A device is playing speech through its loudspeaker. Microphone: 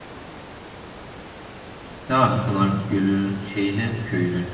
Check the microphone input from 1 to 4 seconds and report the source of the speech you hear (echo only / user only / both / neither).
user only